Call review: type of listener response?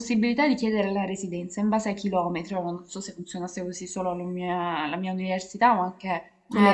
taking over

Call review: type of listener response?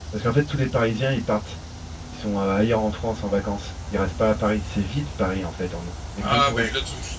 taking over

